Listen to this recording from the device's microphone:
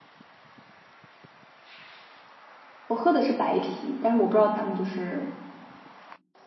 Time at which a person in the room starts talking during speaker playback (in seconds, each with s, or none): 2.9 s